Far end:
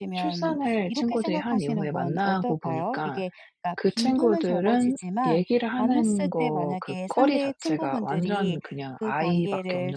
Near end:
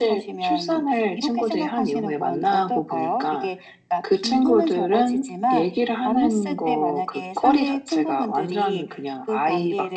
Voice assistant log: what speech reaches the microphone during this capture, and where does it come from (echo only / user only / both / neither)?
echo only